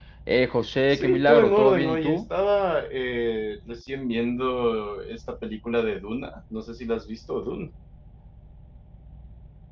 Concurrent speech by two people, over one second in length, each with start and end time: 0.9-2.2

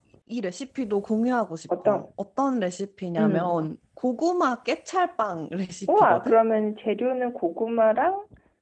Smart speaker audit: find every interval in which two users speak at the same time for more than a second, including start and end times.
none

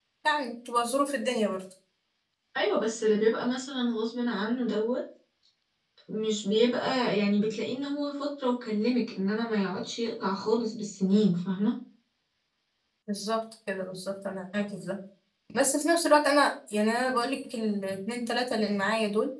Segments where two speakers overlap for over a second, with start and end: none

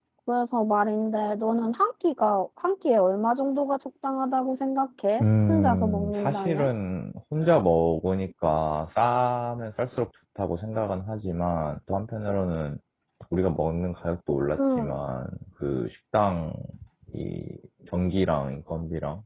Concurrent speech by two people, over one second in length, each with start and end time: 5.2-6.7

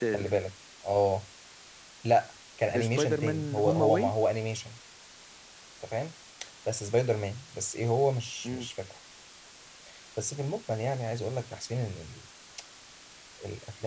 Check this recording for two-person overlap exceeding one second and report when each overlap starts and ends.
2.9-4.1

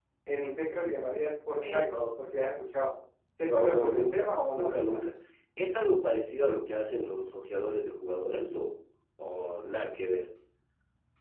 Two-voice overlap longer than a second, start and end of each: 3.5-5.0

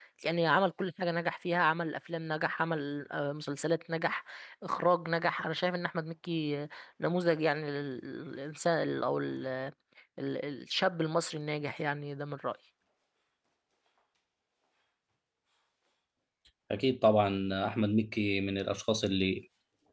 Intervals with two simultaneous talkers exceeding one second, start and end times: none

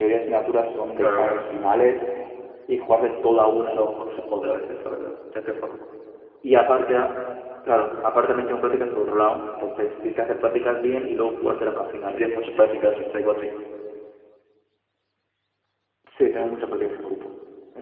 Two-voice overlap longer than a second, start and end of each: none

